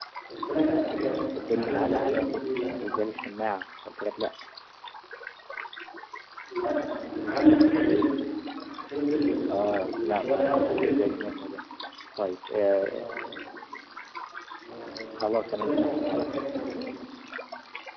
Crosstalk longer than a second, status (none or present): present